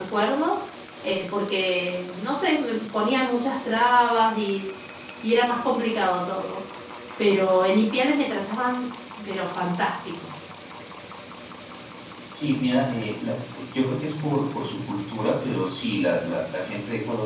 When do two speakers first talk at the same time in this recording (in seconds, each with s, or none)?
none